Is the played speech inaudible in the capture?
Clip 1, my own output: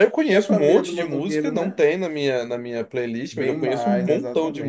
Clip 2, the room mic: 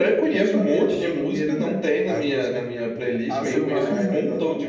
No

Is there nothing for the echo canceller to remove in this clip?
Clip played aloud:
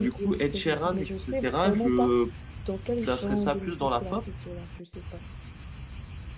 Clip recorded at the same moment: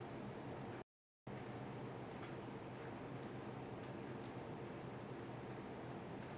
Yes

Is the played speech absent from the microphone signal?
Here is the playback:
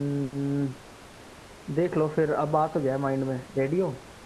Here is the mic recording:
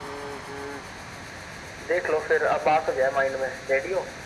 No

